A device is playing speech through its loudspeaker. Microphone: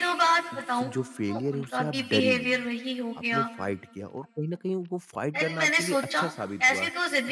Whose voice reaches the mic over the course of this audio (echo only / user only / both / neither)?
both